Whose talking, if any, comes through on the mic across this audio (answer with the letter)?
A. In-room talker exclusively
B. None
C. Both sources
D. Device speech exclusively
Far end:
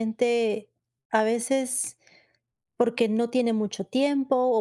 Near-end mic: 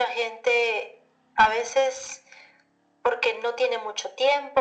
D